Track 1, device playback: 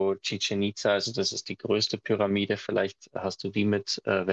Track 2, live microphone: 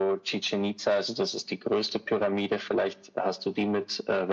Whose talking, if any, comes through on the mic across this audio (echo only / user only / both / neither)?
echo only